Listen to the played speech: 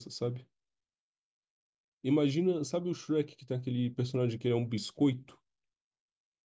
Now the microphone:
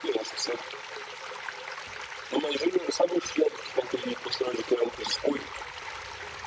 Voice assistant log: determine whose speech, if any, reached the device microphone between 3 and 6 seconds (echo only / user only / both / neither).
echo only